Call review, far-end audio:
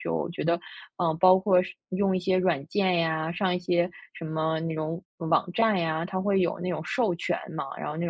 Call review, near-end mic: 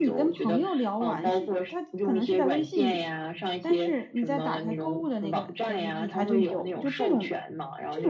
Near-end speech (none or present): present